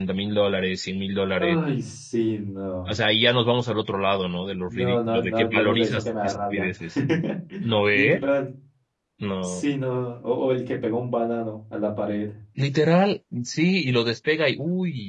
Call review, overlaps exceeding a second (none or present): present